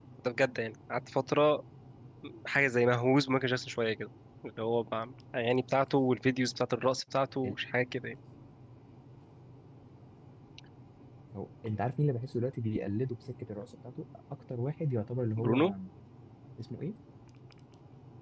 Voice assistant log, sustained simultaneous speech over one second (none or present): none